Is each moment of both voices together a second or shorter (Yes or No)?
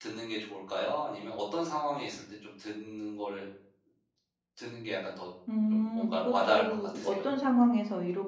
No